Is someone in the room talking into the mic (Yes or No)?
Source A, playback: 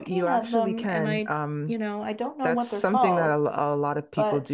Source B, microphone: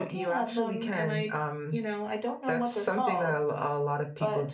No